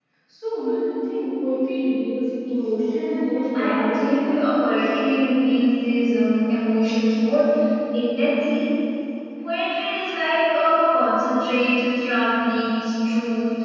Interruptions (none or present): present